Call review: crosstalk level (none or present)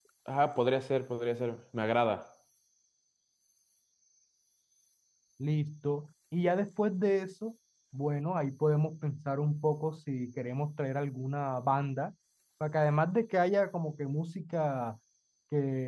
none